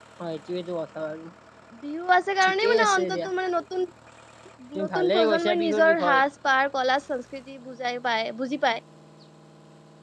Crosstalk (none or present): present